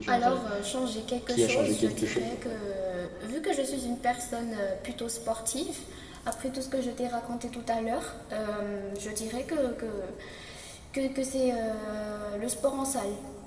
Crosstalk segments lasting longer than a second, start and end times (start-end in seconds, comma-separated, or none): 1.3-2.6